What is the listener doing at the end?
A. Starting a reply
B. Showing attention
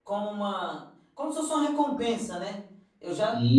B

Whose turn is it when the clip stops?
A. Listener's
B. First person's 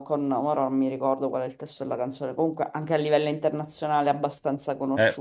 A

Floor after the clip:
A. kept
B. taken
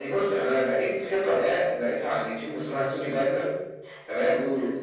A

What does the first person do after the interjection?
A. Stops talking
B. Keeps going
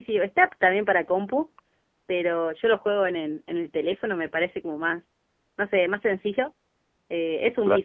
B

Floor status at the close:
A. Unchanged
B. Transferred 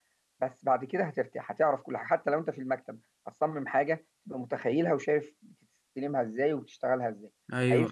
B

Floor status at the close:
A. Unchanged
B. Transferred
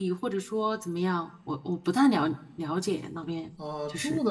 B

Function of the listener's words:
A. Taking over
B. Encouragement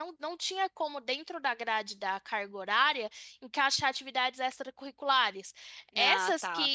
B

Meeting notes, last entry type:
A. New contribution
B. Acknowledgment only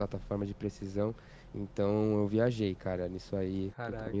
B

